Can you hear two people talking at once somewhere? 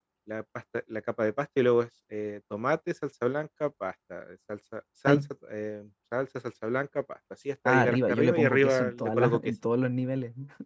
Yes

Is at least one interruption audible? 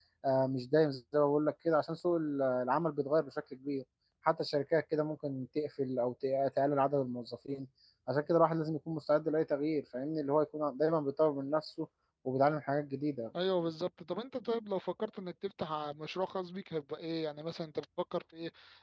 No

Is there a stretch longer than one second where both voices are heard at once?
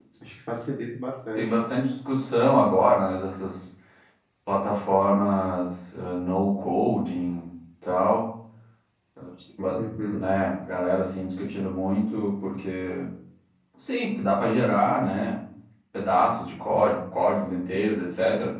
No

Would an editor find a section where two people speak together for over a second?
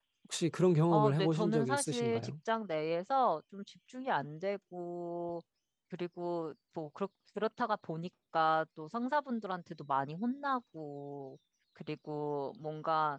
Yes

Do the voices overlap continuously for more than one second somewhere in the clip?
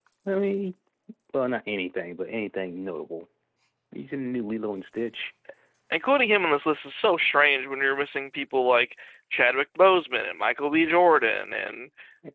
No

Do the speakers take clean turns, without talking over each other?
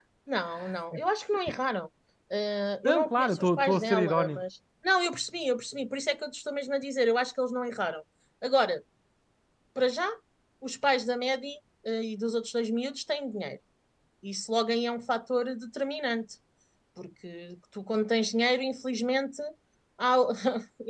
No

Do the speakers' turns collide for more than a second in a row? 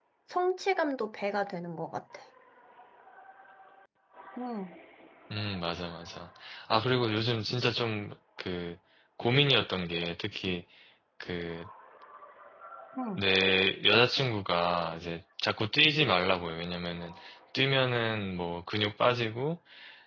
No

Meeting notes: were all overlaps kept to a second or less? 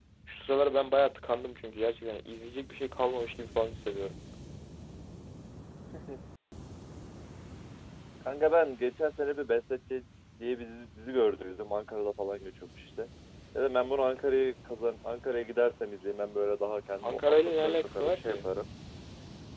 No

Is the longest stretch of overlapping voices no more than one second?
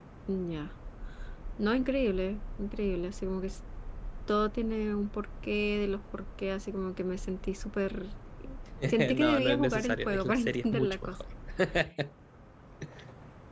No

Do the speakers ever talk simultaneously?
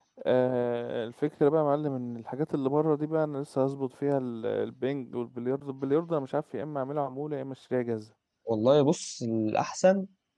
No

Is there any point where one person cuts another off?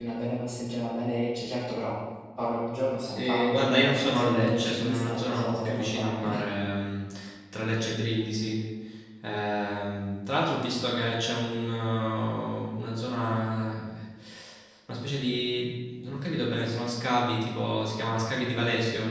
Yes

